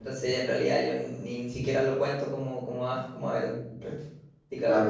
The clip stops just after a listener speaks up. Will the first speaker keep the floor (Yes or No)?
No